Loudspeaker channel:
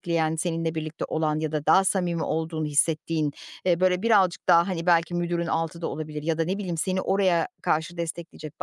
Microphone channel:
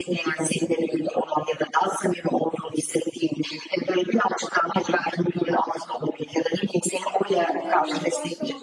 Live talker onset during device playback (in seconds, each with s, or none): 7.3 s